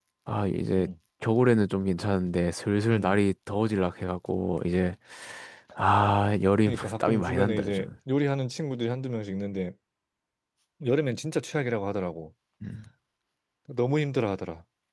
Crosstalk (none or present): present